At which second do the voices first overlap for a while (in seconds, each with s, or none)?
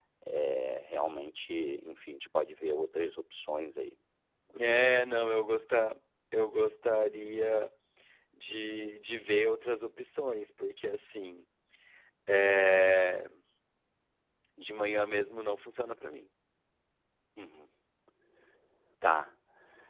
none